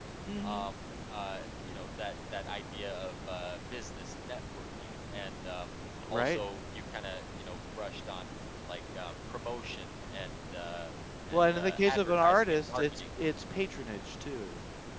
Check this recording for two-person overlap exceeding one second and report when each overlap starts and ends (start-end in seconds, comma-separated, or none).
11.3-13.0